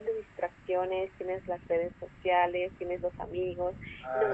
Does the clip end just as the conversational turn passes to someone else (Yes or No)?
No